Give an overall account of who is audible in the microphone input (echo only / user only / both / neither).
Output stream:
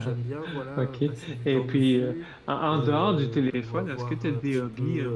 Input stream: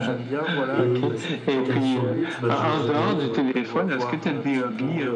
both